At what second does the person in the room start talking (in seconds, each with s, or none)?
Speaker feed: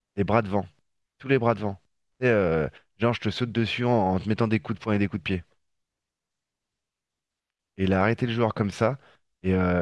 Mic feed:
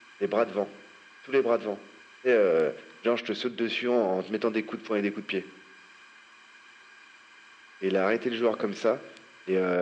none